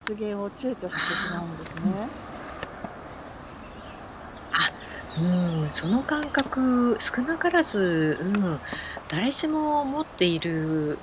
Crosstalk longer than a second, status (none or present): none